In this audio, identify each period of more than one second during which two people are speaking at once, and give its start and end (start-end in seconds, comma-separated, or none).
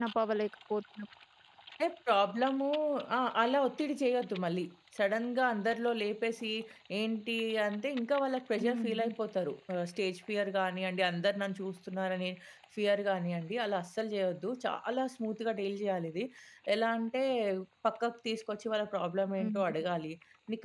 none